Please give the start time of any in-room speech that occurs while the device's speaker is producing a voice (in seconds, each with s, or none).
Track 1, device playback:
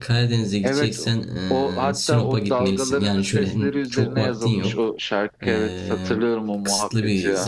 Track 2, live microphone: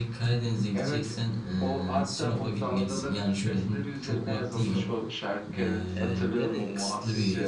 6.0 s